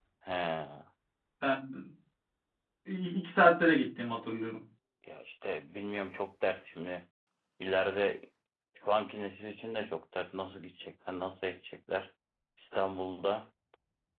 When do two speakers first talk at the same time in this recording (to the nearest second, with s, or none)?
none